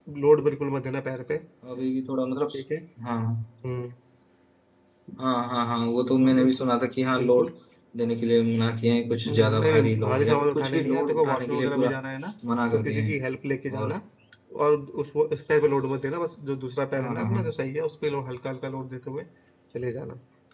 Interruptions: present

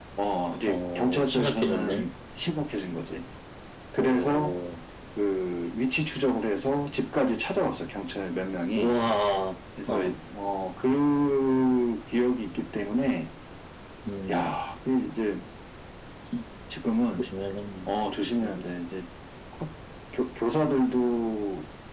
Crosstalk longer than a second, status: present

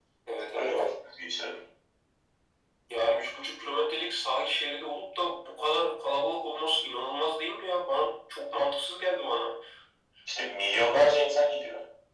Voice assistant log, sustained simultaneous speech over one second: none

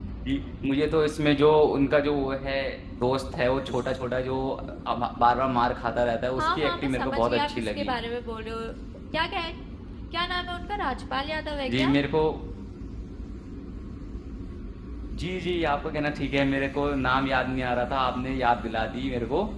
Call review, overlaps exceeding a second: present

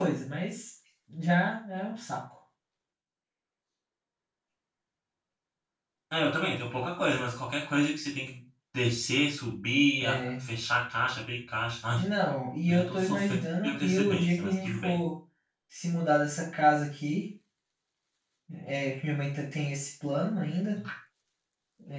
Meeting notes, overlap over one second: present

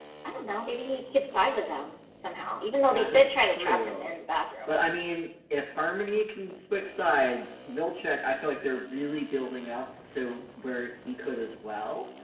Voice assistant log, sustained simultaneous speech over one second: present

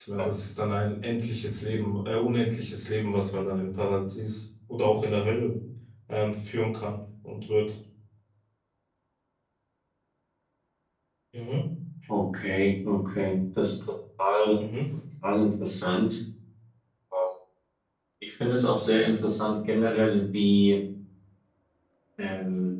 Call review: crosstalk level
none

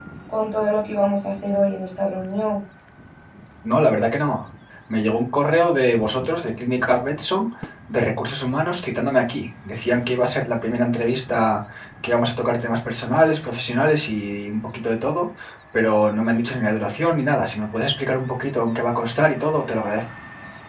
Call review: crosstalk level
none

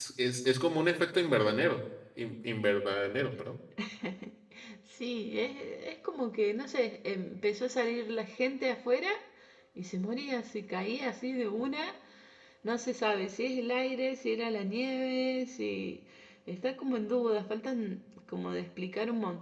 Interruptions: none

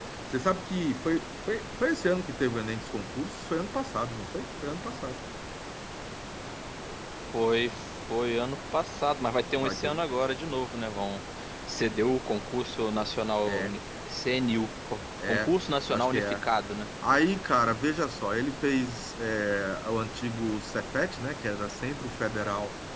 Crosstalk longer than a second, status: none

